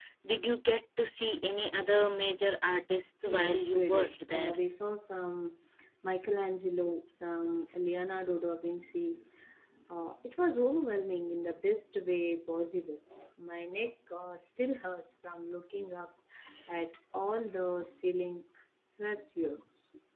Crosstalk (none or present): present